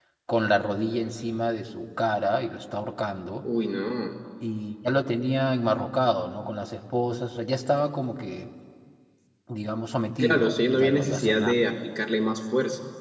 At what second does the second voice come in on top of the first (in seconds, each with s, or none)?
10.2 s